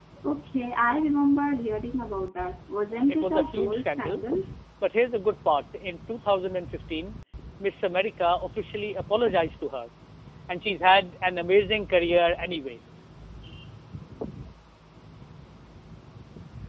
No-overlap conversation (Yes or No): No